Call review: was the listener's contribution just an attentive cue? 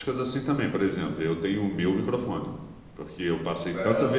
Yes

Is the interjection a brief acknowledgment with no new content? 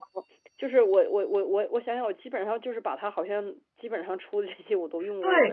No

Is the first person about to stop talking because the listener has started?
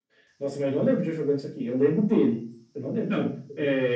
Yes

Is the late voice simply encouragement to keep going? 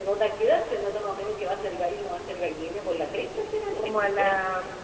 No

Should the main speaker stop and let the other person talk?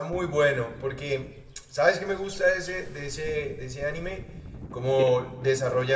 No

